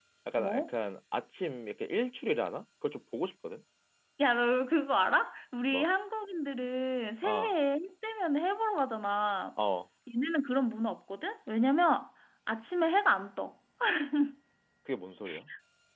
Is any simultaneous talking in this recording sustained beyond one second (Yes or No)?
No